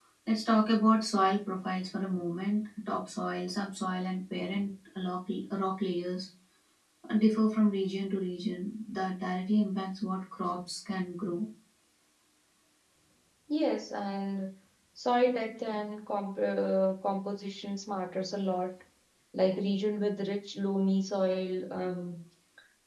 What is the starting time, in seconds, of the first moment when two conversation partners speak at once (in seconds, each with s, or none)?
none